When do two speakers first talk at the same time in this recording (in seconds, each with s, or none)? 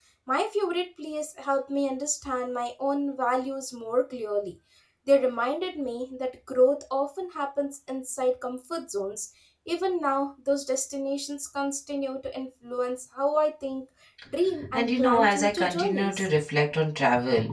14.7 s